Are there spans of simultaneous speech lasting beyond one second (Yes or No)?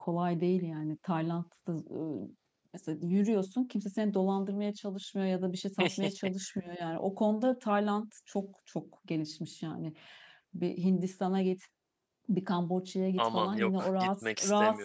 Yes